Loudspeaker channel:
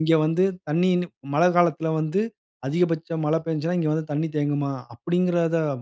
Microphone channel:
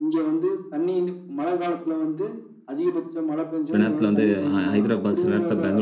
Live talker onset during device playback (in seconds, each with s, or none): 3.7 s